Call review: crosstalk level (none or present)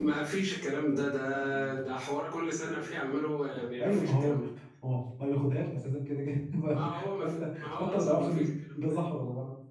present